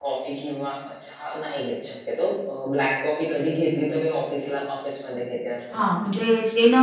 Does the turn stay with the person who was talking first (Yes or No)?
No